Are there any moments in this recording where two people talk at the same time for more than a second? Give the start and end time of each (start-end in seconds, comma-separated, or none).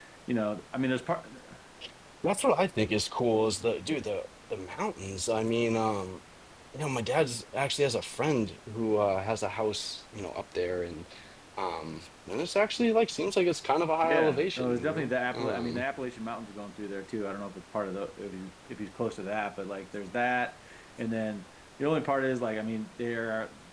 14.0-15.8